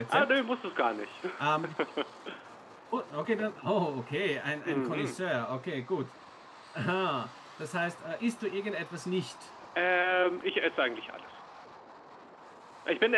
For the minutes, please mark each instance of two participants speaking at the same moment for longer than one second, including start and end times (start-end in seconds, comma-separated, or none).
none